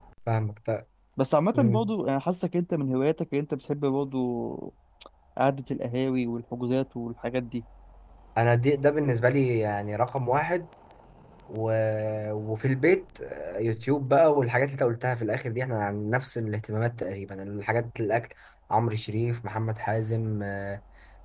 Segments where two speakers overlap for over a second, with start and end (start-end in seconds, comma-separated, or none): none